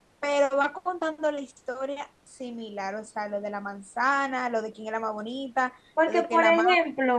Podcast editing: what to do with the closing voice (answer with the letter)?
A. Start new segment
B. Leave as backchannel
A